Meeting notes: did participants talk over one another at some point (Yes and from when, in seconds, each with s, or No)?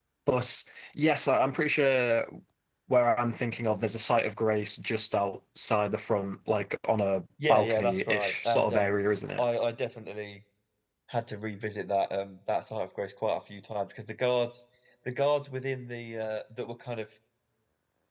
Yes, from 7.4 s